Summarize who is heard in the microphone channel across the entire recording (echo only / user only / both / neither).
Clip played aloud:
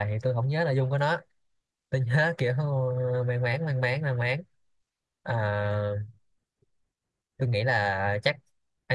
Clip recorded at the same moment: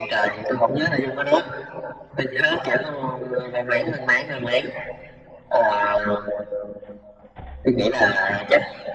echo only